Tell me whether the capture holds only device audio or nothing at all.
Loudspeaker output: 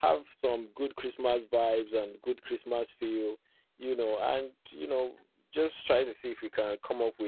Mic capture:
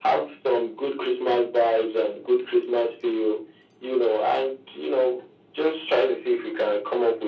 Yes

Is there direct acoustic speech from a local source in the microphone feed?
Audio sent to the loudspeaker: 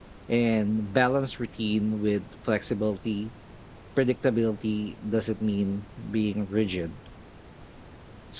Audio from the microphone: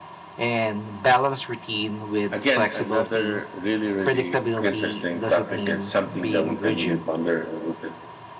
Yes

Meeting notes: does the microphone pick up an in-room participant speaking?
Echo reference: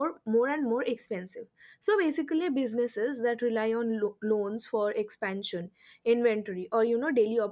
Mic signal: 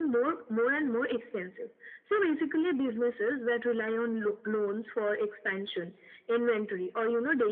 No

